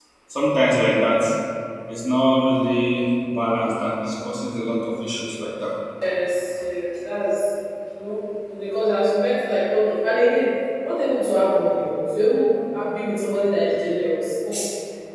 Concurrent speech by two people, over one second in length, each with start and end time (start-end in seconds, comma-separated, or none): none